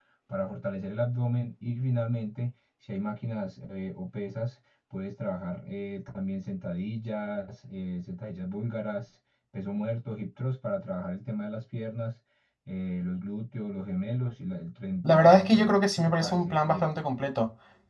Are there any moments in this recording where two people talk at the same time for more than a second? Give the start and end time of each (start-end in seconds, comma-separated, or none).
15.0-16.9